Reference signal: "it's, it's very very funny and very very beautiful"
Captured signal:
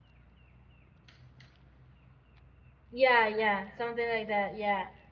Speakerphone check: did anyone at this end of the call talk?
Yes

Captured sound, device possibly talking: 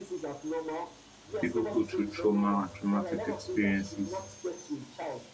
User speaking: Yes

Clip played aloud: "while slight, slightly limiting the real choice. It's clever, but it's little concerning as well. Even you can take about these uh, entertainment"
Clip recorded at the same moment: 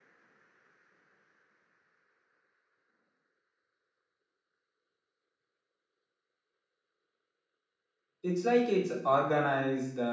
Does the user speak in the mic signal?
Yes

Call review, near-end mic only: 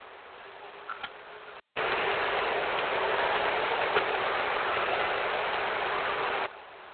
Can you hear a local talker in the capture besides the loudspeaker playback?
No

